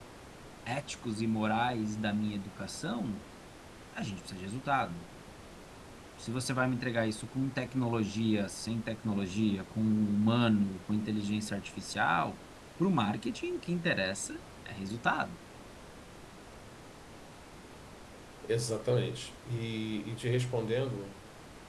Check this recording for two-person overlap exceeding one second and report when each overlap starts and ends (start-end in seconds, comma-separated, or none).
none